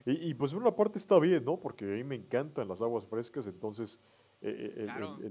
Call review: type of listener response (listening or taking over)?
listening